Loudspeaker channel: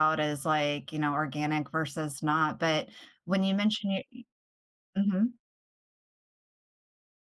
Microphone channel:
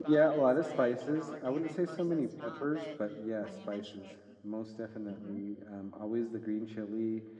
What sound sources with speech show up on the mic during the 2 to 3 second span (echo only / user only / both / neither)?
both